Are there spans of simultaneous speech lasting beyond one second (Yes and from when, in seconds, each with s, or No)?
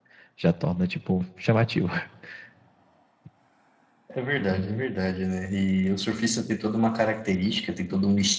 No